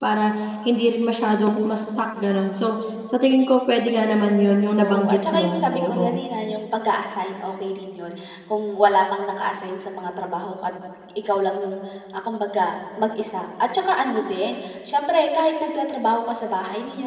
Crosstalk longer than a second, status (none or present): present